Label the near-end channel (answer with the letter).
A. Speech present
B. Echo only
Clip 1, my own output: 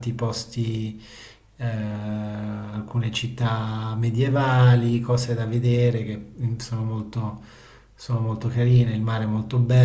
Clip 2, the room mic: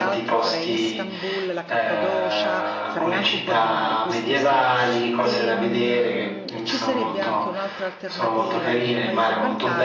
A